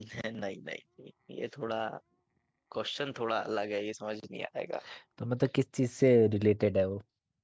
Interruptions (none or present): none